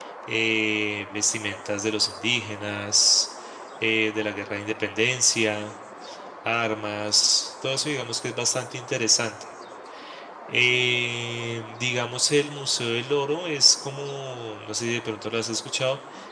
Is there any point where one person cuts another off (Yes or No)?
No